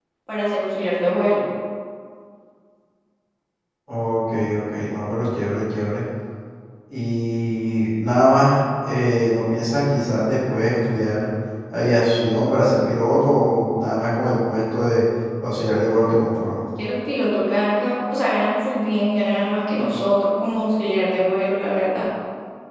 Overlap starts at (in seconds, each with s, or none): none